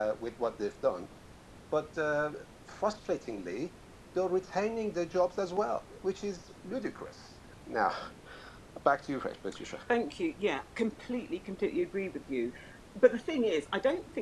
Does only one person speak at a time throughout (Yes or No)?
Yes